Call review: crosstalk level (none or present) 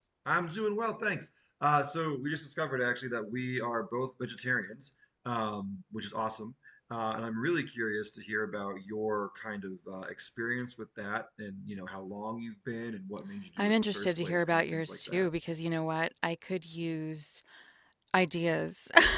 present